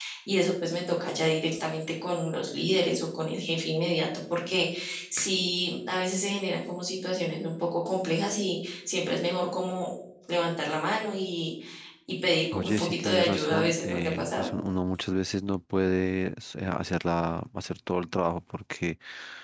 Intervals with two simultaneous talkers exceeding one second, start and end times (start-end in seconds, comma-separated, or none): 12.5-14.5